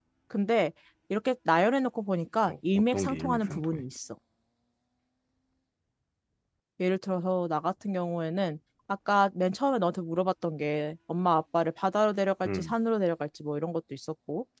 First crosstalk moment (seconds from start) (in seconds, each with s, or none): 2.5 s